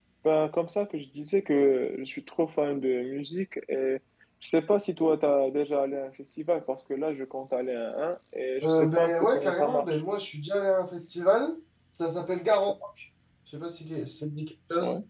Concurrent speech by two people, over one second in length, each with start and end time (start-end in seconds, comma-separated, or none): 8.6-10.0